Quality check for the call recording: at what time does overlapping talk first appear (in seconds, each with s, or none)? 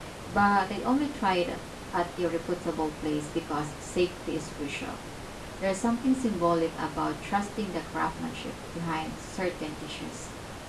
none